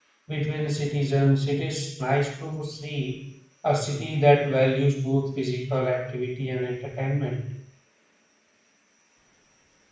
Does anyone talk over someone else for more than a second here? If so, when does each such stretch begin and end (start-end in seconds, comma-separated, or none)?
none